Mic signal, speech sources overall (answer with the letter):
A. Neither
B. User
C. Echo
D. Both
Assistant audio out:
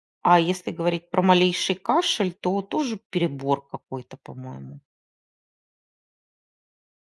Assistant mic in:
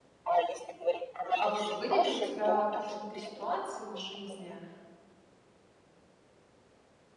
D